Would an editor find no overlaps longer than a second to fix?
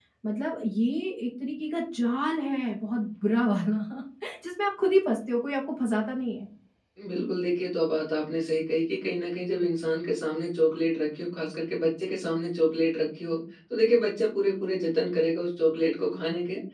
Yes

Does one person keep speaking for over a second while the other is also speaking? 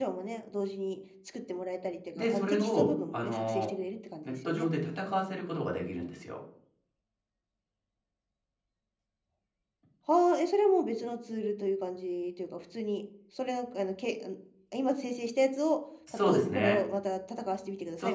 Yes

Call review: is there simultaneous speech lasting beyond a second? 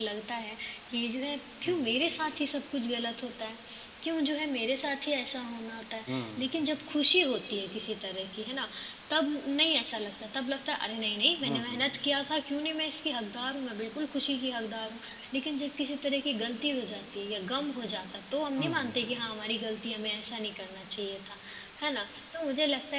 No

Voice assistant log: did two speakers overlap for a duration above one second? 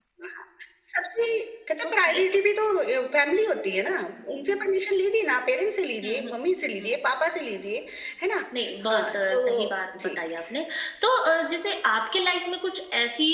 Yes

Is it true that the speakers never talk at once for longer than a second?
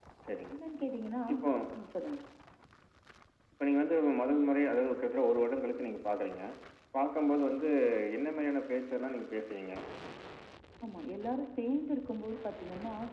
Yes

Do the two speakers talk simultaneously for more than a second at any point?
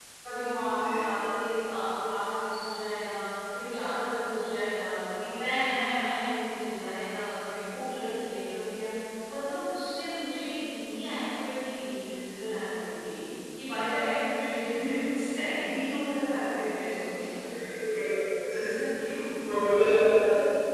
No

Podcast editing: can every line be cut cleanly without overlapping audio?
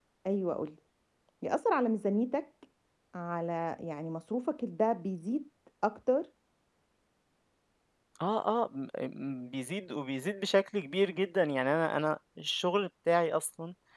Yes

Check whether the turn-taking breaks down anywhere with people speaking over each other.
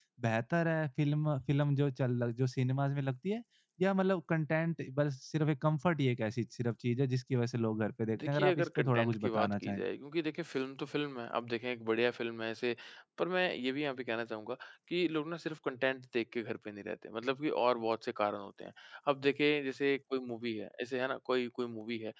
Yes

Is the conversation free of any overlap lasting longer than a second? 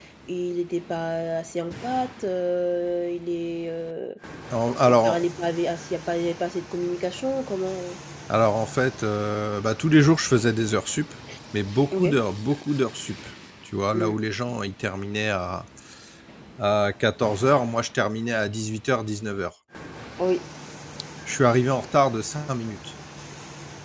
Yes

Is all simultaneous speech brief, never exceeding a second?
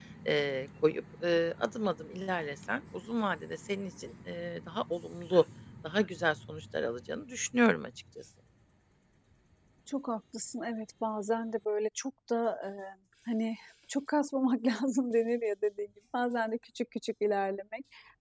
Yes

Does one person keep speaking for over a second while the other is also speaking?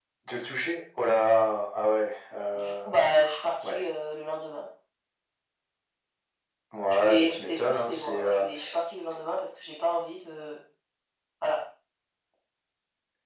Yes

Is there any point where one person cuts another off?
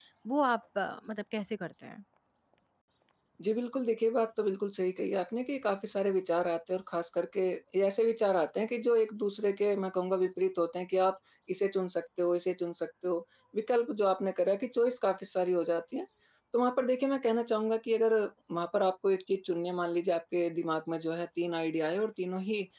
No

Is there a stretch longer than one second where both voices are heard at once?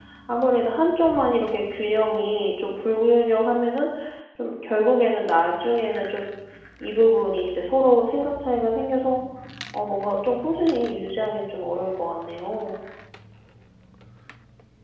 No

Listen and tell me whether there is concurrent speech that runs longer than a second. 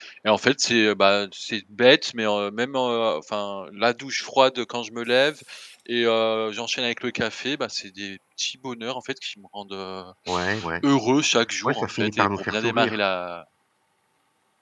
Yes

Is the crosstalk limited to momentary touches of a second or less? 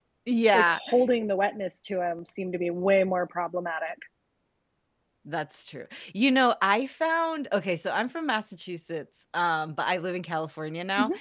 Yes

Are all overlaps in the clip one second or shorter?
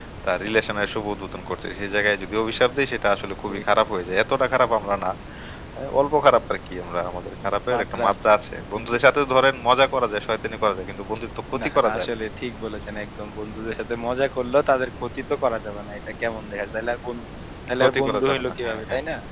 No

